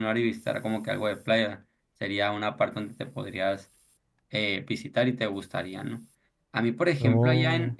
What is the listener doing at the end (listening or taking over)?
listening